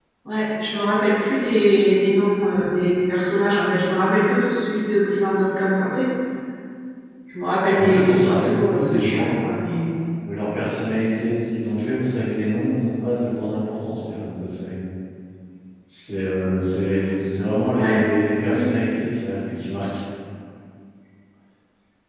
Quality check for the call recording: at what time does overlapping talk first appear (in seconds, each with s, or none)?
7.8 s